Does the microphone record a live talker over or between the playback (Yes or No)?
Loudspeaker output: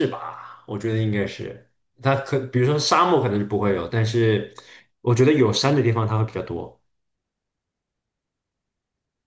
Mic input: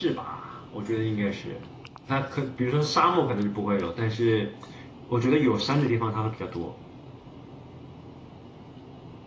No